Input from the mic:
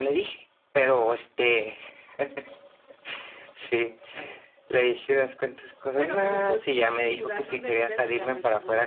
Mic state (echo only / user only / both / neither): both